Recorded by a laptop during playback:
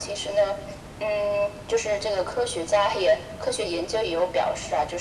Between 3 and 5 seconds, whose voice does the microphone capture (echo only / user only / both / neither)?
echo only